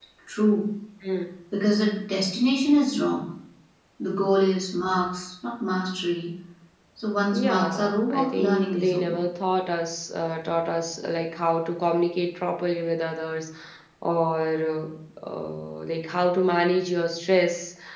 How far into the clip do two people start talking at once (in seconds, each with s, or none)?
7.3 s